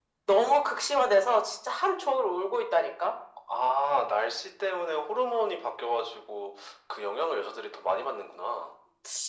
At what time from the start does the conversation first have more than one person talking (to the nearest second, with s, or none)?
none